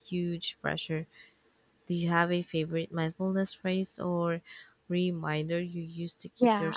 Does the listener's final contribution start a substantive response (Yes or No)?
Yes